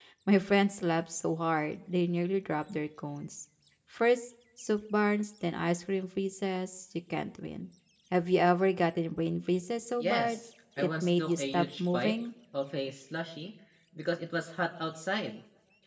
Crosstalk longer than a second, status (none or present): present